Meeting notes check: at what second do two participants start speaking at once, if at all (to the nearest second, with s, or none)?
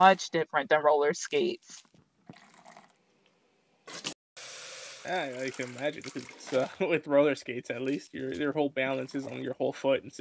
none